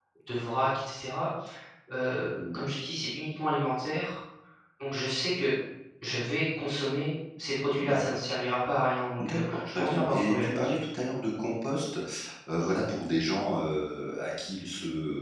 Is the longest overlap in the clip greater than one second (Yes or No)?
Yes